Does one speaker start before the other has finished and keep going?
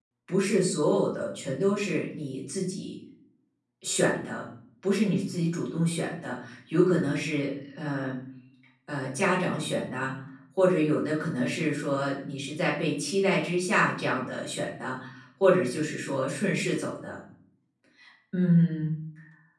No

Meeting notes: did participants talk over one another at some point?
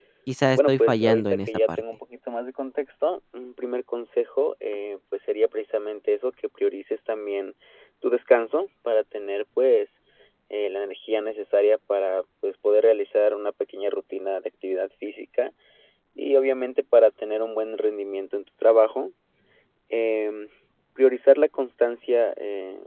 Yes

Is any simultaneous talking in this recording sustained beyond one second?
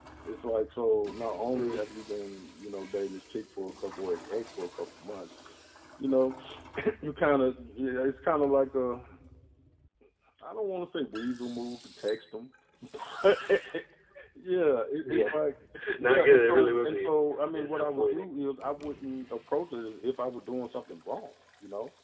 Yes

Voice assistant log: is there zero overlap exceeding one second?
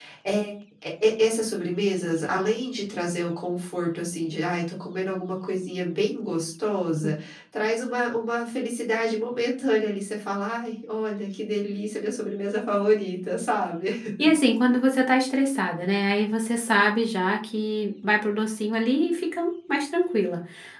Yes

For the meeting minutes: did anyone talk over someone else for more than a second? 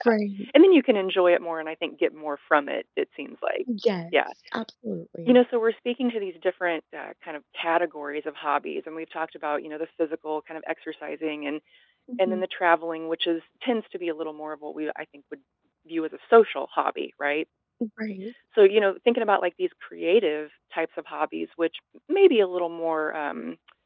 No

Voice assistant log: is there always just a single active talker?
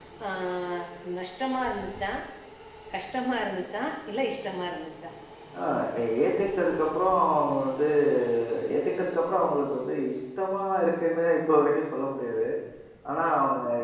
Yes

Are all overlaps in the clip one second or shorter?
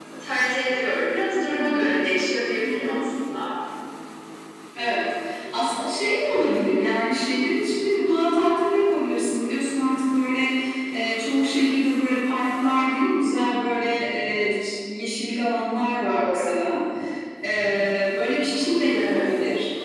Yes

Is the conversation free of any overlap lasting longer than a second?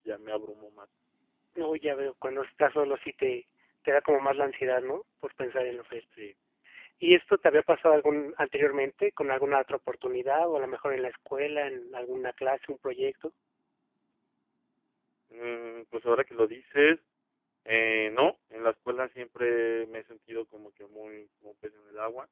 Yes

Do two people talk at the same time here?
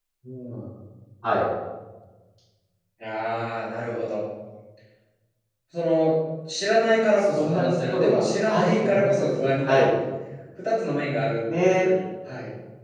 Yes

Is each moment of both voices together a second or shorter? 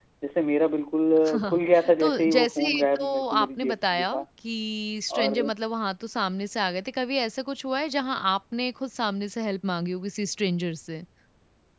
No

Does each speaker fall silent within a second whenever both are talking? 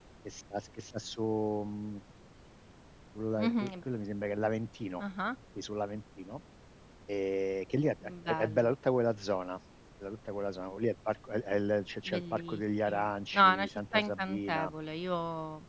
No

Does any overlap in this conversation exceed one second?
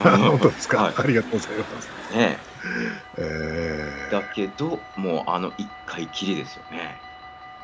No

